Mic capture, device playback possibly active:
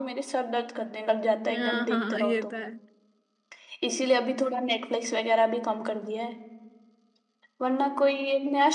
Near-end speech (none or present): present